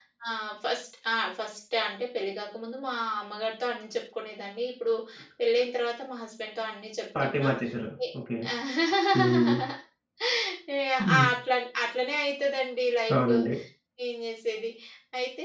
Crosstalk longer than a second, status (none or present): none